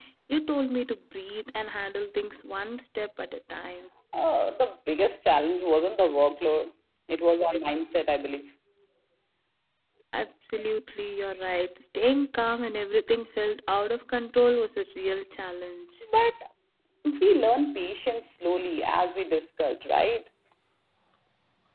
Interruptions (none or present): none